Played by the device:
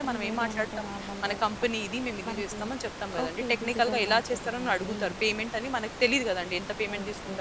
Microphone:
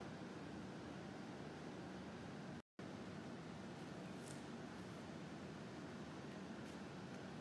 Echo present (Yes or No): No